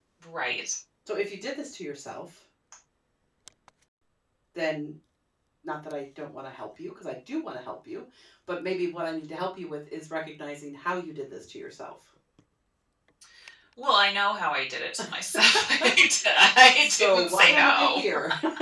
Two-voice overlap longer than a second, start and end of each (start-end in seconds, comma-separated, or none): 16.7-18.0